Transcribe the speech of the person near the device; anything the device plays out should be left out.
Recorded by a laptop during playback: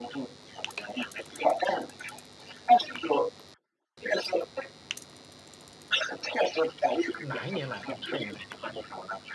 哪一年来的？我看一下啊。

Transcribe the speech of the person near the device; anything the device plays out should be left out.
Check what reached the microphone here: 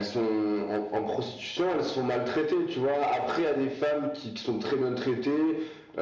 none

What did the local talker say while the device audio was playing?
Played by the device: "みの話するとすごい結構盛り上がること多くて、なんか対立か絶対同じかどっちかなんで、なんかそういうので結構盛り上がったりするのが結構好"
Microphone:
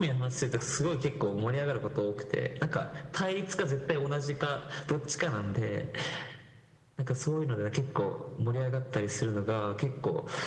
none

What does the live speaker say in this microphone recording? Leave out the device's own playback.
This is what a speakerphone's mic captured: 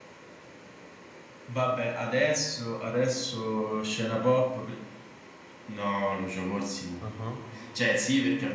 ah

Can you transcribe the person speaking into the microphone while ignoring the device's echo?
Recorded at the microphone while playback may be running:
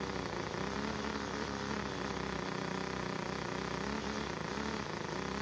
none

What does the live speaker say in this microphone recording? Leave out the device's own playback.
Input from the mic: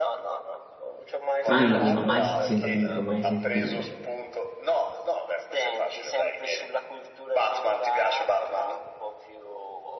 non l'avevo mai sentito, mai sentito.

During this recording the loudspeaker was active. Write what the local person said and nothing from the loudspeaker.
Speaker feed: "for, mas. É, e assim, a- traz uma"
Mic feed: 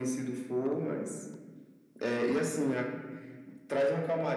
none

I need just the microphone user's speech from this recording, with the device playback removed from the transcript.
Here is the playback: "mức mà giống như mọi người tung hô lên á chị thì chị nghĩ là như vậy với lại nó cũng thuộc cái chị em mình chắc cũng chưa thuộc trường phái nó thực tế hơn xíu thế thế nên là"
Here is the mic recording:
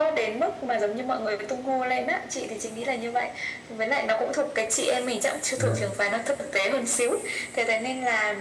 dạ

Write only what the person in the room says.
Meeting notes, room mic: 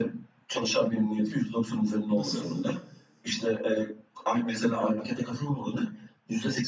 nasıl?

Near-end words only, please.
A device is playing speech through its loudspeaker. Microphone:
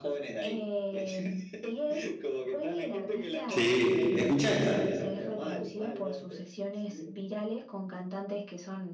sí, escucha esta.

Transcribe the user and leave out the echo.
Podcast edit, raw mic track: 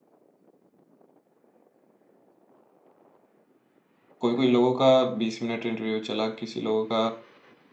कोई कोई लोगों का बीस मिनट इंटरव्यू चला किसी लोगों का

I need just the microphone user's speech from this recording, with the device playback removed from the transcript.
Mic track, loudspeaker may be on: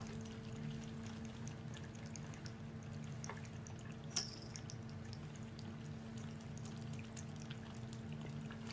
none

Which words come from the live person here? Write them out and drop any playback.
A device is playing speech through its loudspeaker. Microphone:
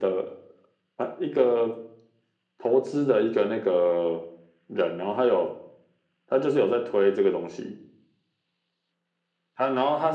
none

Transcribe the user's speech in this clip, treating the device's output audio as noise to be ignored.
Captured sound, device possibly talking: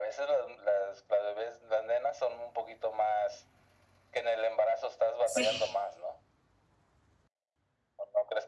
sí.

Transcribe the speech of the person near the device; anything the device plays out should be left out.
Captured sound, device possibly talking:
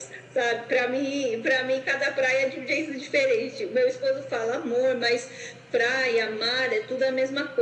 none

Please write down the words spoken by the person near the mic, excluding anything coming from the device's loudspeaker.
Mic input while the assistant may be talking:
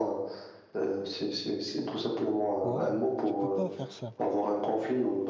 ouais, tu peux pas faire ça,

